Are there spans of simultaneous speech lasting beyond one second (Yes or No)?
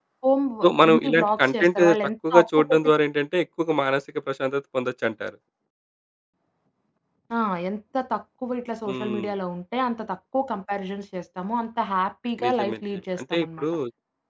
Yes